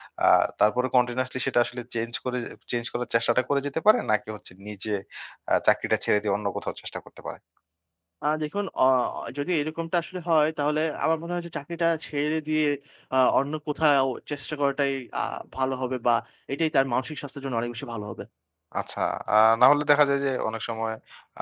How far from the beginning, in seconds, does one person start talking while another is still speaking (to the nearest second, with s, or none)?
none